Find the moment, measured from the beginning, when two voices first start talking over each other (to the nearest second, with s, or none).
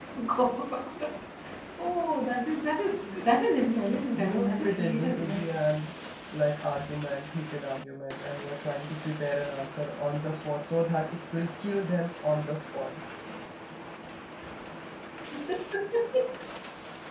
4 s